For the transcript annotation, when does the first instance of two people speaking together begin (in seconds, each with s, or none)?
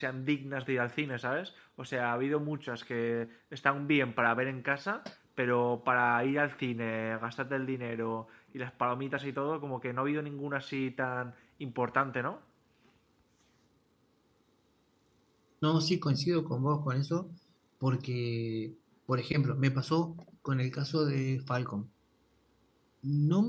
none